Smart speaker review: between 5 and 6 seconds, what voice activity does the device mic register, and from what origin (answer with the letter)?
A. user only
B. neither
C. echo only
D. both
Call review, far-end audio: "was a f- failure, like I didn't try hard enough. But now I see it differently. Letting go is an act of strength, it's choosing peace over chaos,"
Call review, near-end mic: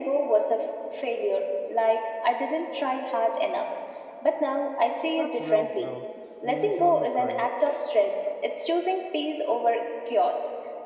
D